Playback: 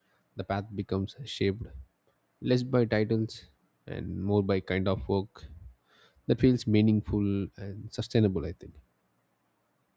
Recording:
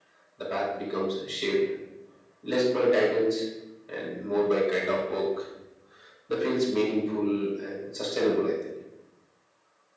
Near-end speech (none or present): none